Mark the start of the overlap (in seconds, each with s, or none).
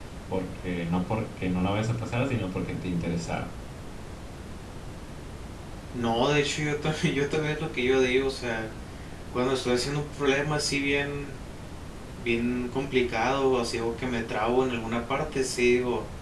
none